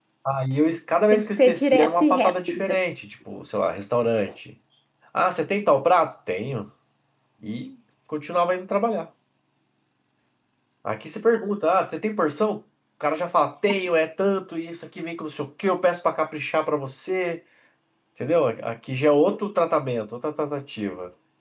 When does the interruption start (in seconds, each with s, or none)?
1.1 s